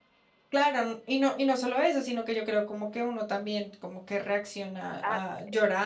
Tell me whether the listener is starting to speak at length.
Yes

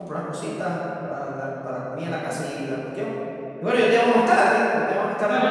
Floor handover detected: Yes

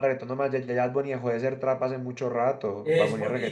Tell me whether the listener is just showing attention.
No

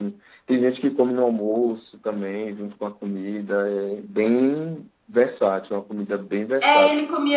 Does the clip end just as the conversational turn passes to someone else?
Yes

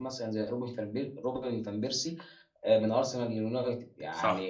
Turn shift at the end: No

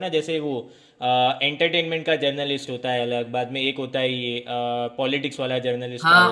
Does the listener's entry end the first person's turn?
Yes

